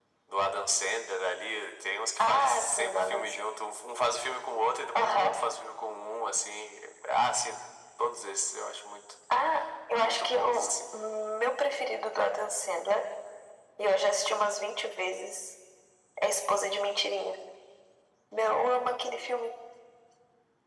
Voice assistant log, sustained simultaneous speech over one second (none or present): present